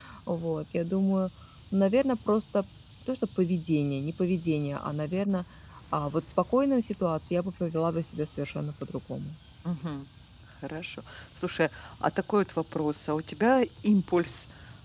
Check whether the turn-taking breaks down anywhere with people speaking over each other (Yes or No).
No